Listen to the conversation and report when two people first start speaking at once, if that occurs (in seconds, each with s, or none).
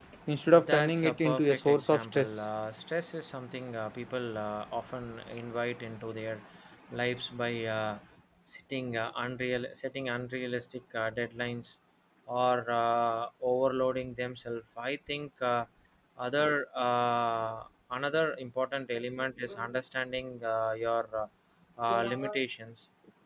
0.6 s